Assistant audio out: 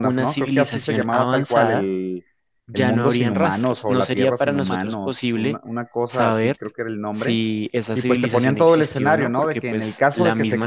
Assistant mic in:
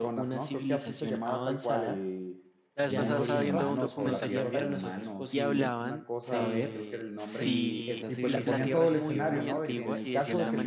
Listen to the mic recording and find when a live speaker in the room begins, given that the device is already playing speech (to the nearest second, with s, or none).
3 s